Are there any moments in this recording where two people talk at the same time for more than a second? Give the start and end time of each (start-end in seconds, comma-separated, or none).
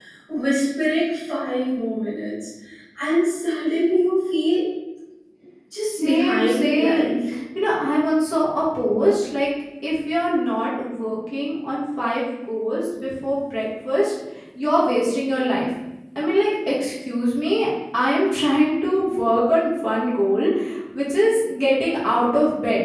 5.8-7.2